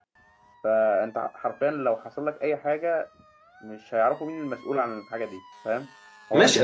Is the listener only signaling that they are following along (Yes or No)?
No